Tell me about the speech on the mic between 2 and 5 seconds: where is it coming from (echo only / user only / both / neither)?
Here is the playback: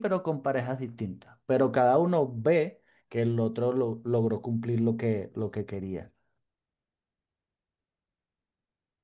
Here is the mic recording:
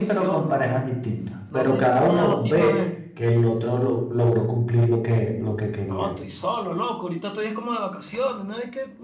both